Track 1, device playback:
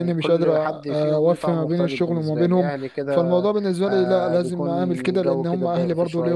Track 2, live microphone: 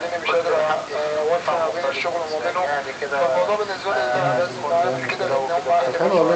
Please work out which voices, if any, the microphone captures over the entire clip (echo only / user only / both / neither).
both